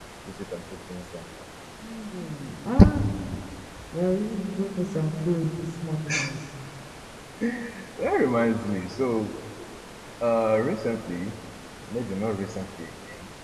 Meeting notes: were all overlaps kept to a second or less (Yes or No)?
Yes